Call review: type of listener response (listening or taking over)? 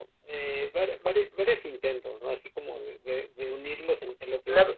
taking over